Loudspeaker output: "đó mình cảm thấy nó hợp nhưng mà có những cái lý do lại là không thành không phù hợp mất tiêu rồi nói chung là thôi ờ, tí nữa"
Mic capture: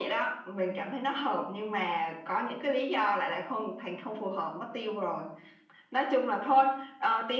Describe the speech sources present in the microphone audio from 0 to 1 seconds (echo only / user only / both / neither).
echo only